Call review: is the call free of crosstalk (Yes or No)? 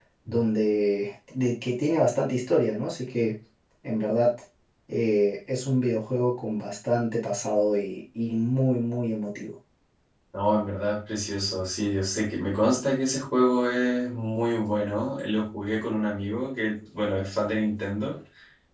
Yes